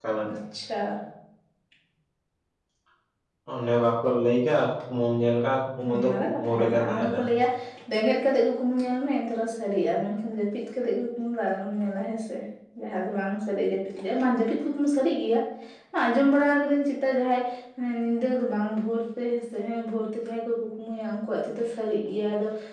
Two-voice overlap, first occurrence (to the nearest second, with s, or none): 6 s